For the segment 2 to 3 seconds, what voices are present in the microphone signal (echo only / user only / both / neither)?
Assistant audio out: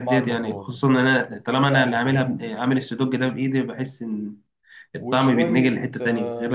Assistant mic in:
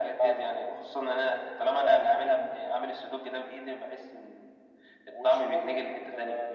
echo only